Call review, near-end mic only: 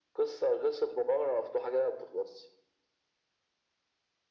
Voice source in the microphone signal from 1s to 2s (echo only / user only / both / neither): echo only